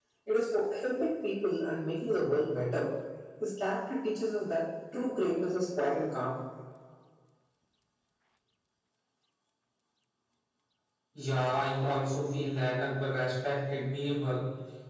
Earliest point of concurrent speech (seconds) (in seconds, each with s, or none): none